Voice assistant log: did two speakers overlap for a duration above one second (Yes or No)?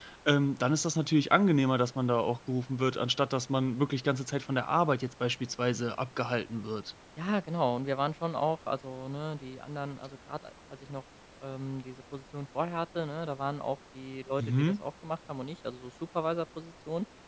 No